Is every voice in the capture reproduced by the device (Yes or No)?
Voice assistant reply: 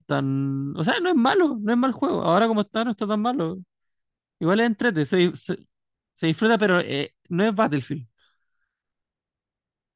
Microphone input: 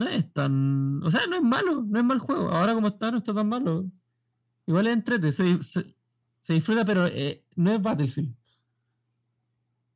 Yes